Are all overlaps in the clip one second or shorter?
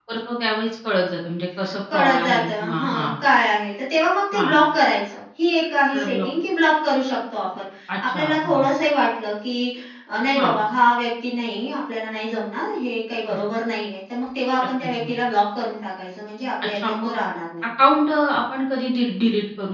No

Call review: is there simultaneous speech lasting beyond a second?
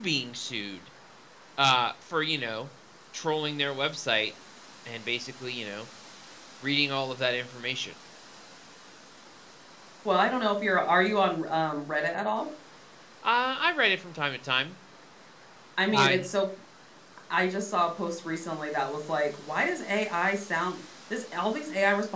No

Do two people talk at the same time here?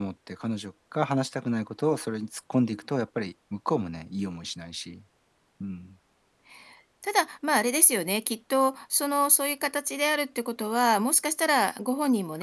No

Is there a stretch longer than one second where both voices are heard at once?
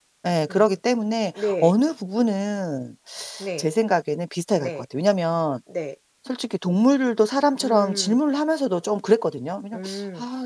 No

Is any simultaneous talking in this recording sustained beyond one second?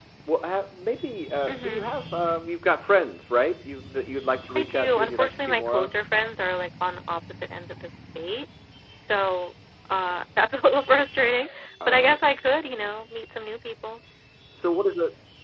Yes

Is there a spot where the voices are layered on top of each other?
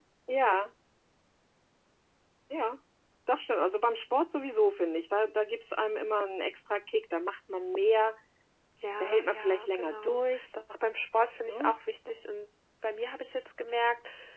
Yes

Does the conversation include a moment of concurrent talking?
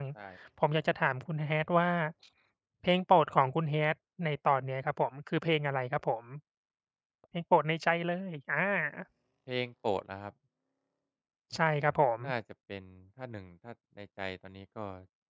No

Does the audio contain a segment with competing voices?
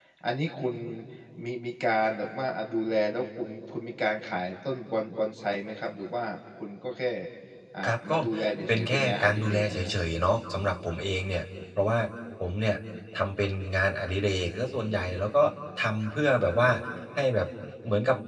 Yes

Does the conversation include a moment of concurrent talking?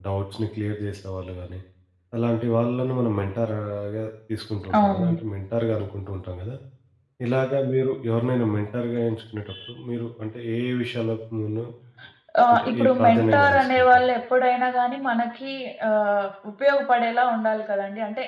Yes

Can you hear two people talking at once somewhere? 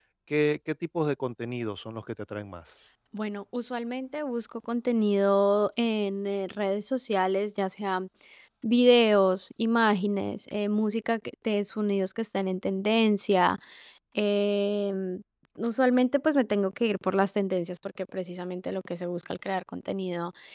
No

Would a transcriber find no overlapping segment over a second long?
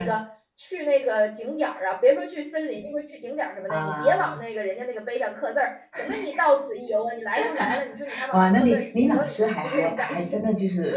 No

